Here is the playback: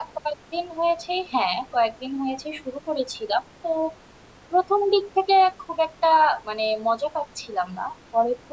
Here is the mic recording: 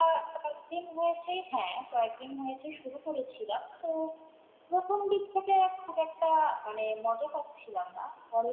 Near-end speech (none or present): none